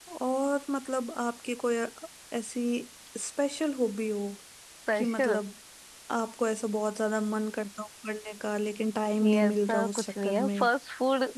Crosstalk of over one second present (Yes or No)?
Yes